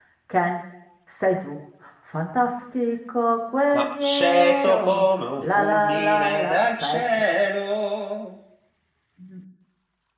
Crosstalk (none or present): present